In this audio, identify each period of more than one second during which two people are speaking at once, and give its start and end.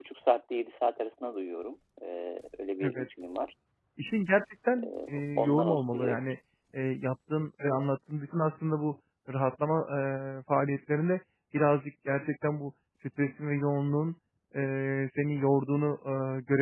4.8-6.2

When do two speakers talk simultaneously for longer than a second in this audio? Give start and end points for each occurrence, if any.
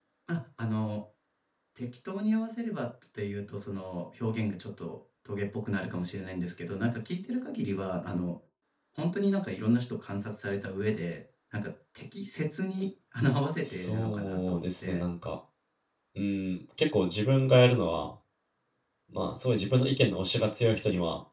13.6-15.0

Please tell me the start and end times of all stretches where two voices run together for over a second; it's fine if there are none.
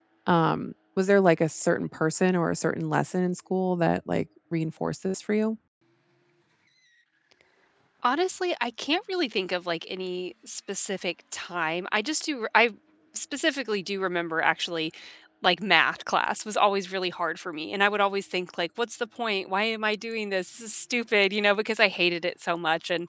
none

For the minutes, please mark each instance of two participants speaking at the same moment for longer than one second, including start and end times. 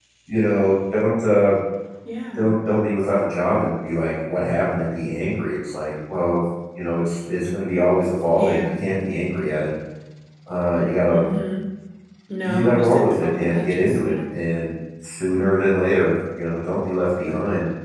12.4-14.1

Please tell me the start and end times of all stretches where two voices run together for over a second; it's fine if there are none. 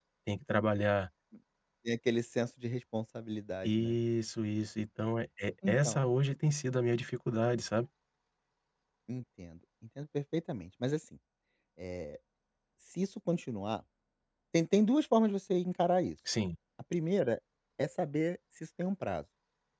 none

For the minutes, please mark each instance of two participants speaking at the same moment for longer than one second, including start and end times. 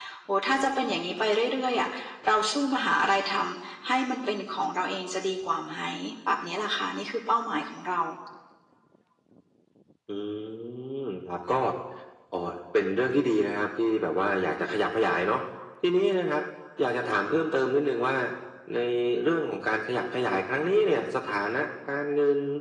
none

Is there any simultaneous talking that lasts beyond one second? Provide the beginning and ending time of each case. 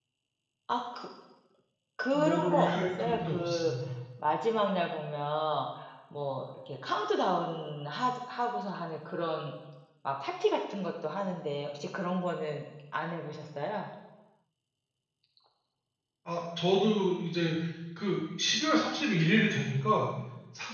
2.1-3.7

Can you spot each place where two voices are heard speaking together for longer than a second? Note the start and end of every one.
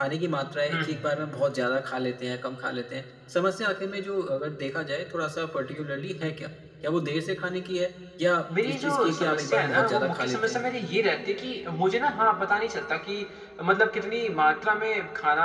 8.6-10.6

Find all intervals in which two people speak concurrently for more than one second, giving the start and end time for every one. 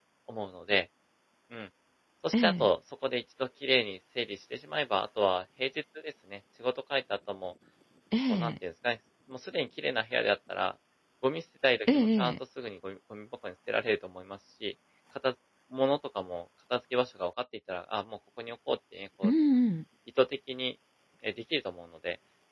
none

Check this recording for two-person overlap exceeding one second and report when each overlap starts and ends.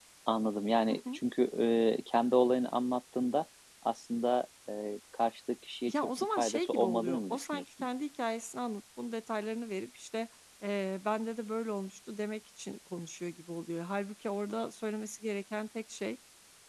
5.9-7.6

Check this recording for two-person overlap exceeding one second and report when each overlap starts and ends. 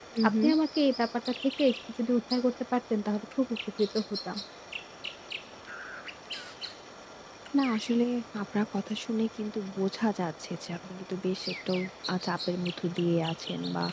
none

